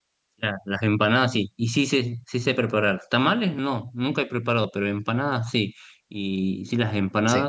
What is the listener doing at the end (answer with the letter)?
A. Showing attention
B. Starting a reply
A